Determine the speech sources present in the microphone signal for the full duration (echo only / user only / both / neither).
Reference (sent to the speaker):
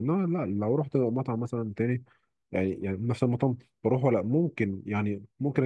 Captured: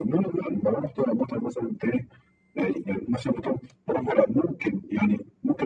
echo only